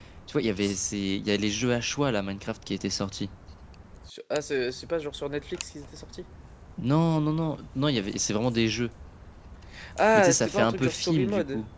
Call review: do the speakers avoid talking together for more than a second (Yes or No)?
No